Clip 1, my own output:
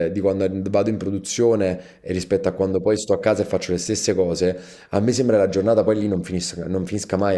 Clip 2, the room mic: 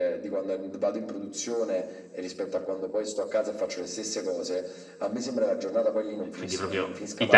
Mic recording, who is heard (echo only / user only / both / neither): both